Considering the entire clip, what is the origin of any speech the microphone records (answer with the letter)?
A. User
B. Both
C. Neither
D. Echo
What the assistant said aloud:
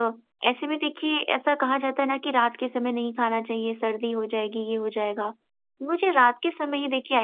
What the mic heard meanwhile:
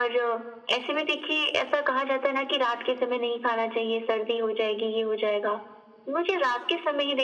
D